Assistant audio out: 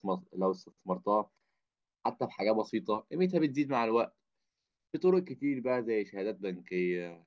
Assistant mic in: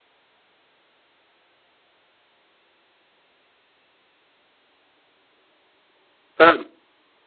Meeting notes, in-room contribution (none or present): present